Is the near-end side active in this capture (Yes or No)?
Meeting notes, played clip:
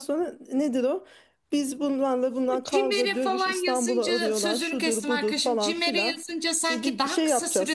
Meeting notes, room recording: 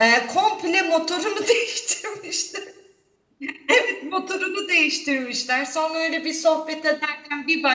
Yes